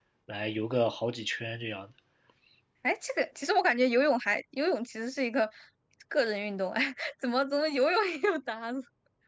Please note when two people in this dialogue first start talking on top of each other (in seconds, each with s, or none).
none